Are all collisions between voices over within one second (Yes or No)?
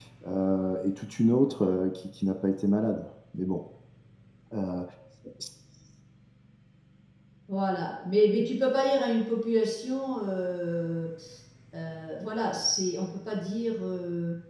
Yes